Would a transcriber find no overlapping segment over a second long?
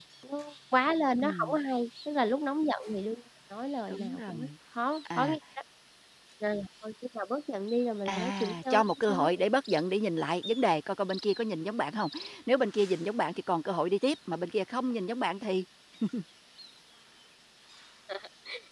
No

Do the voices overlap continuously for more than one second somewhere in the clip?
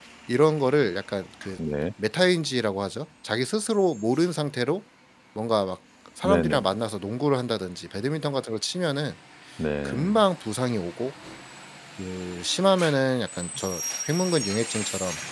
No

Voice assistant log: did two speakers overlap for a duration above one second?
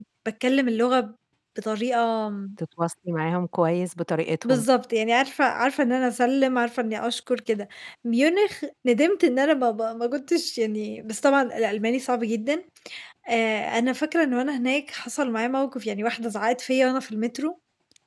No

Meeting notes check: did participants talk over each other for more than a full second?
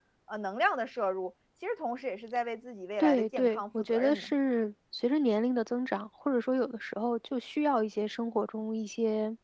Yes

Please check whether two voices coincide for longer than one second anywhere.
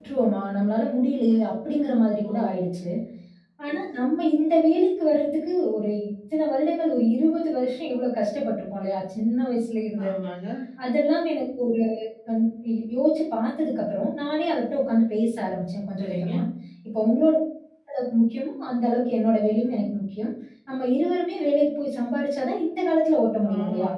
No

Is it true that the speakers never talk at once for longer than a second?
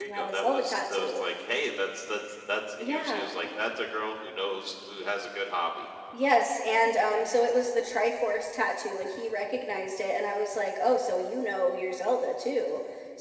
No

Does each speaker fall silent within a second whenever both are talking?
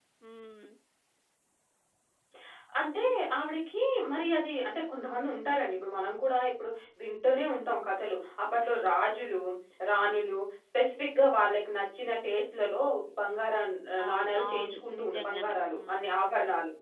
No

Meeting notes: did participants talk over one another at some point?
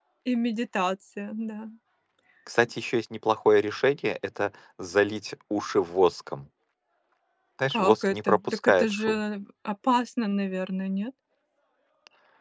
Yes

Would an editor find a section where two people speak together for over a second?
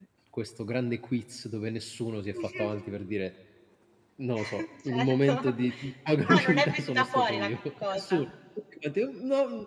Yes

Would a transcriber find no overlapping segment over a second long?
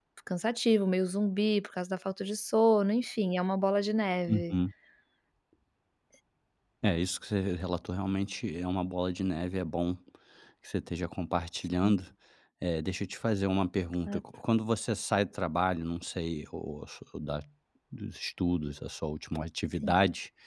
Yes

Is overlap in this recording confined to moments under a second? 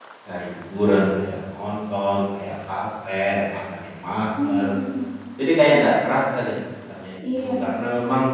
Yes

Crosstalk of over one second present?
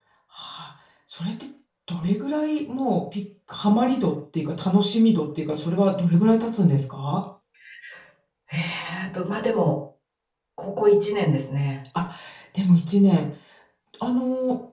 No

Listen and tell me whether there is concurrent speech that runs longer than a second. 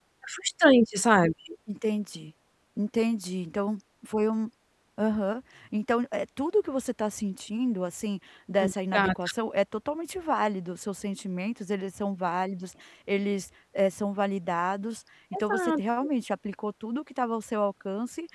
No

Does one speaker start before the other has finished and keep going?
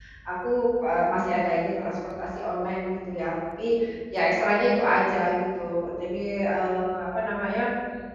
No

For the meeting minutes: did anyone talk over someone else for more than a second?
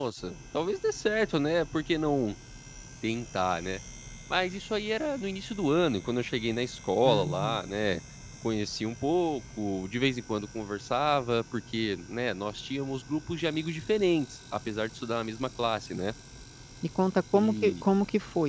No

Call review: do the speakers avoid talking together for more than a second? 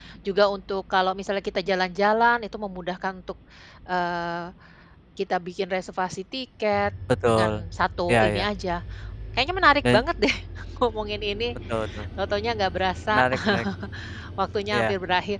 Yes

